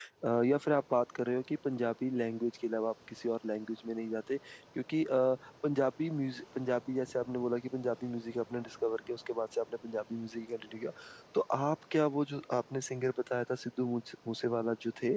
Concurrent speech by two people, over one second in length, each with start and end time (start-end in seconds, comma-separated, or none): none